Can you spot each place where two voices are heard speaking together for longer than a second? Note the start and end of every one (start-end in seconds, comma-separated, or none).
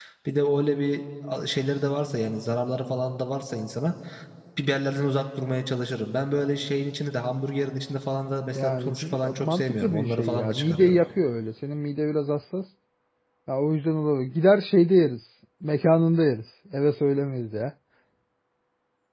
8.6-11.0